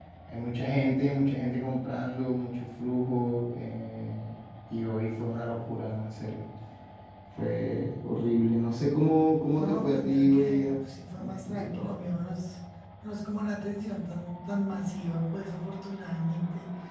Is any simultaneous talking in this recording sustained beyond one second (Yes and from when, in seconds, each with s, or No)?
Yes, from 9.5 s